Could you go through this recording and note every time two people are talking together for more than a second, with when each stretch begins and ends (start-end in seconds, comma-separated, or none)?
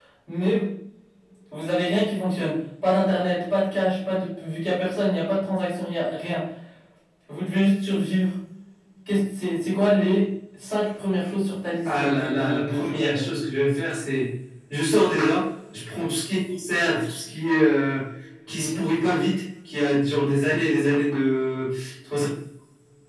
11.8-13.2